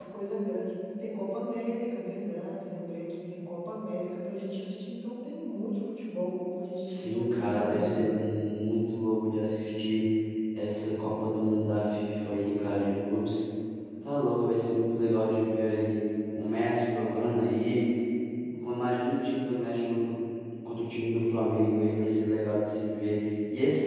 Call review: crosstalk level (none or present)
present